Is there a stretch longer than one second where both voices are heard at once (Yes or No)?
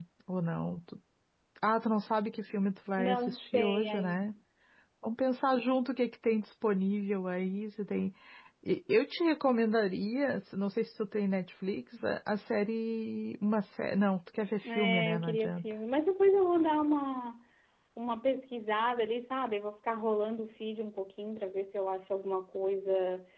Yes